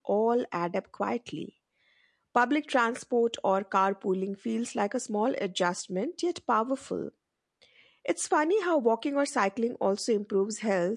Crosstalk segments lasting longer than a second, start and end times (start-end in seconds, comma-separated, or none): none